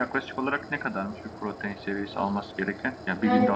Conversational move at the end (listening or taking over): listening